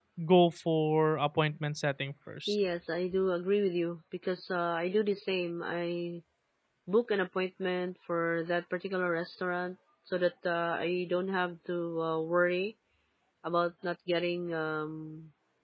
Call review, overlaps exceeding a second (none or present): none